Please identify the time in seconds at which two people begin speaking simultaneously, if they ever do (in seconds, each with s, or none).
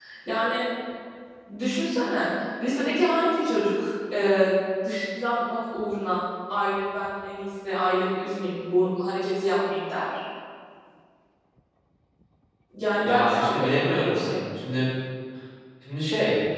13.0 s